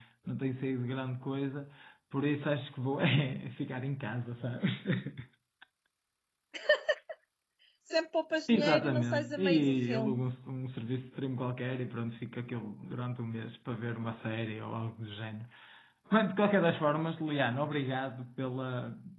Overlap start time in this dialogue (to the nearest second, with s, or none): 8 s